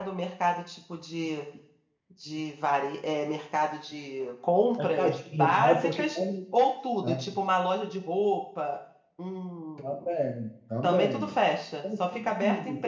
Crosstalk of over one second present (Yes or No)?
Yes